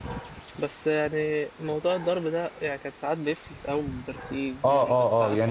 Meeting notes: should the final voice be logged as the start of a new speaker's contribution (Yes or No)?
Yes